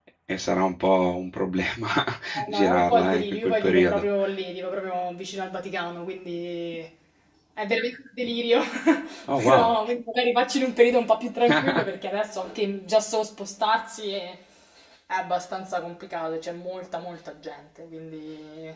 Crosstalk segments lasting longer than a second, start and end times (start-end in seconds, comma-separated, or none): 2.5-4.1